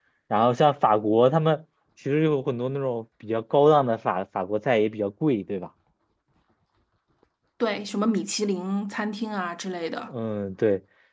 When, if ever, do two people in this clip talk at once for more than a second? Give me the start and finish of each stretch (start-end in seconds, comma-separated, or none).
none